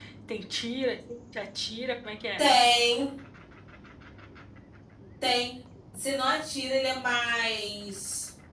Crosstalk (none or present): none